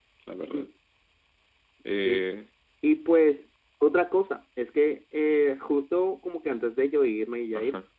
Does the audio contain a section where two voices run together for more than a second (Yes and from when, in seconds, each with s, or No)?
No